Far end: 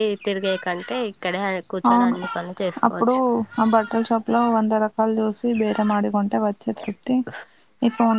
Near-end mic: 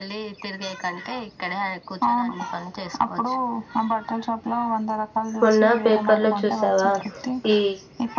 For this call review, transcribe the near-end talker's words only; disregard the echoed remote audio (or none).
మొన్న పేపర్ లో చూసావా ఈ